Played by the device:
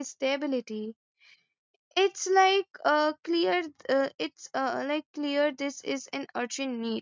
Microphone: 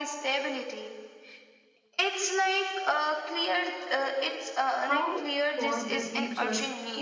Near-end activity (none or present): present